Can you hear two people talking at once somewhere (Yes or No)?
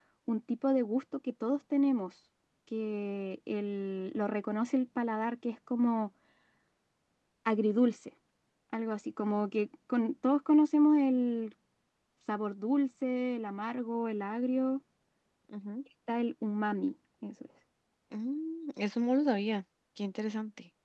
No